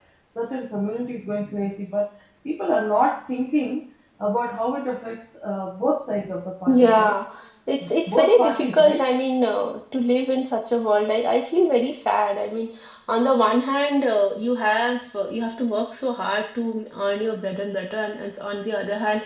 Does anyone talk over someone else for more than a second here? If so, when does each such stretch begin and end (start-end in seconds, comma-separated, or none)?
7.8-9.0